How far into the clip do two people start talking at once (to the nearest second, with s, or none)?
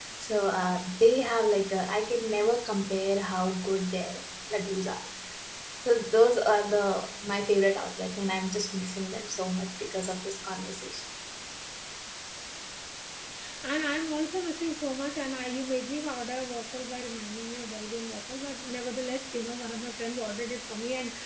none